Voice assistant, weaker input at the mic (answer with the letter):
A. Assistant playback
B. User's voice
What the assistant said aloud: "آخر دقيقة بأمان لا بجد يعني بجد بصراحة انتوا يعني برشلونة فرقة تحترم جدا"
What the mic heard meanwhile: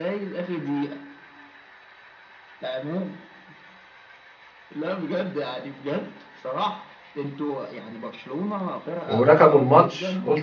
A